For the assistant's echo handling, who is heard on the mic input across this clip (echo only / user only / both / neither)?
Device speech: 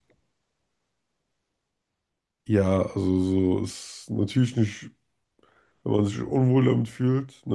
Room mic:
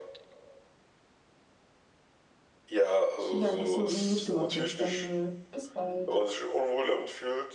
both